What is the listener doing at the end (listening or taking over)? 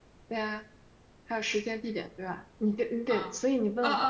taking over